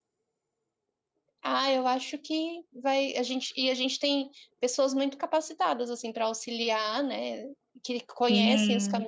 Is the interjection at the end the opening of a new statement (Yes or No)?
Yes